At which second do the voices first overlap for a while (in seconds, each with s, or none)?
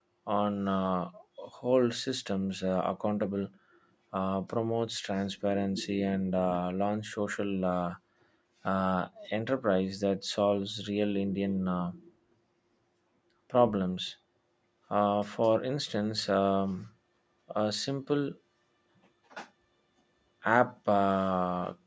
none